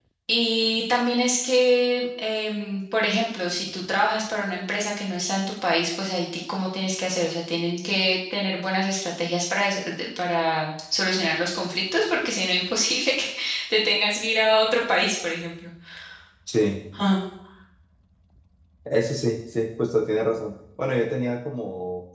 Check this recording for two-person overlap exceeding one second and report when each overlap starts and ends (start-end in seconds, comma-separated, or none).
none